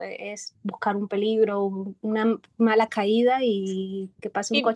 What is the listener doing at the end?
taking over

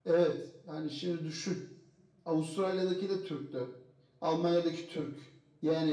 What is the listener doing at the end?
listening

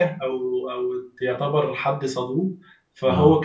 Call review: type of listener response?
listening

